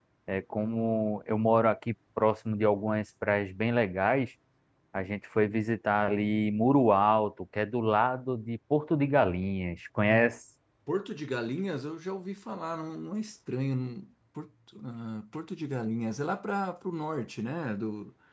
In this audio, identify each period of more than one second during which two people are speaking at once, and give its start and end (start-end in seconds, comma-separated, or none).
none